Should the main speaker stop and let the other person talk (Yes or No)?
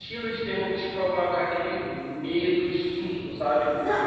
No